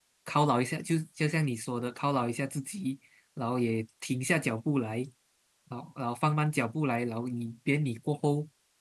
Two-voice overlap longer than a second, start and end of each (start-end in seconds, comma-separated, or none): none